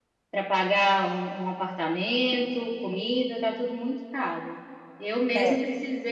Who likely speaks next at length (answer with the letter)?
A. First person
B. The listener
A